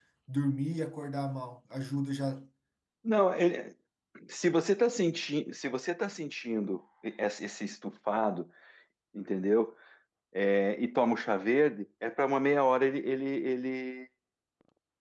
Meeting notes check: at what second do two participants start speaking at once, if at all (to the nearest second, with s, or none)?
none